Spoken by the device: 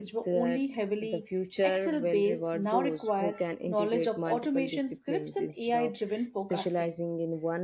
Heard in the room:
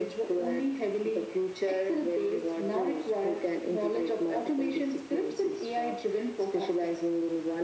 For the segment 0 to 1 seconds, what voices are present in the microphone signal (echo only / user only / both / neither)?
echo only